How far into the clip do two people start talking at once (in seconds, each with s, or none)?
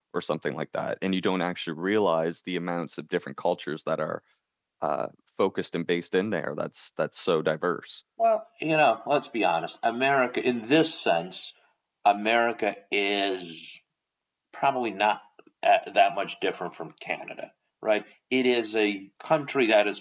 none